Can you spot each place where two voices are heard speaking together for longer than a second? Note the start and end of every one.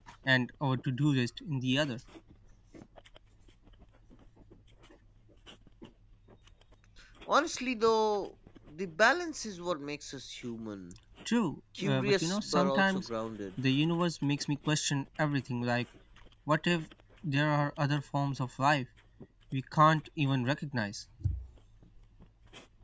11.8-13.1

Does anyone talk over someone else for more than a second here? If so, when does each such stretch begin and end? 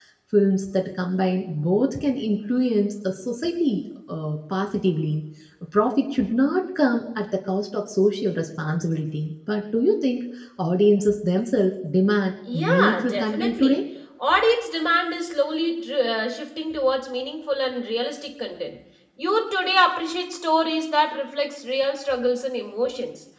12.5-13.8

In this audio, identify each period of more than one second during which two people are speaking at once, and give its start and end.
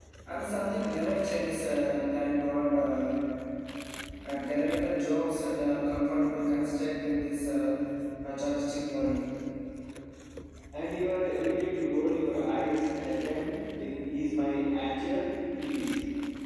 none

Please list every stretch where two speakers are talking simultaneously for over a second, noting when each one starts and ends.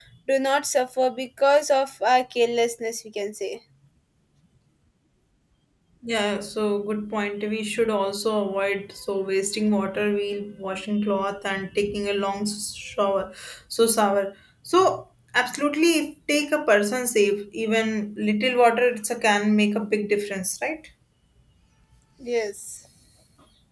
none

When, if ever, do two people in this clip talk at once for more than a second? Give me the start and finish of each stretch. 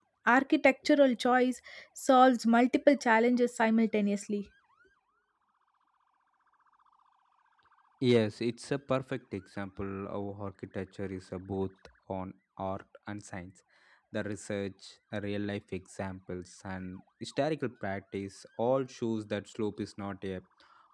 none

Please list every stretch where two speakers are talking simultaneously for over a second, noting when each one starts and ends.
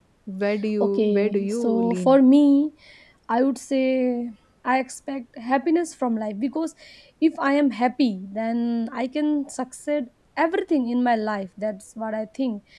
0.8-2.2

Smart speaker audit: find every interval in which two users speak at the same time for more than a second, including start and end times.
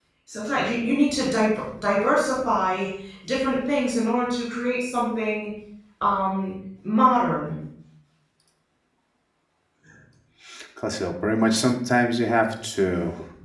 none

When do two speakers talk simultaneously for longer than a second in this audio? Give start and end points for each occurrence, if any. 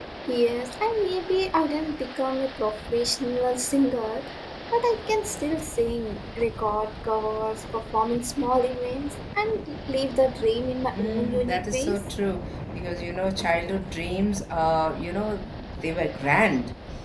10.8-12.0

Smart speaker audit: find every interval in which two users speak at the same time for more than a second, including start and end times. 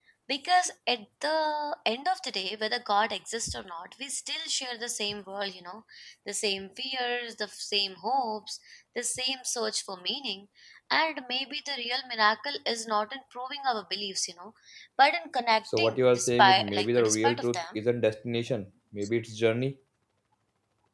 15.8-17.6

